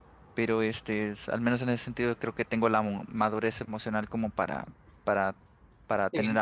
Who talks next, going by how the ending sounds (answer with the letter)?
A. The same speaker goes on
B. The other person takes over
B